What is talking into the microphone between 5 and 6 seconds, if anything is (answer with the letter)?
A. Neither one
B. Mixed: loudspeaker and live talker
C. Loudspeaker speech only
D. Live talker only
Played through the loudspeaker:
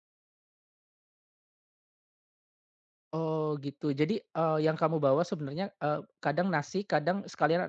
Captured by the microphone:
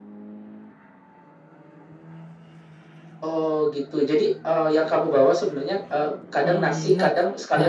C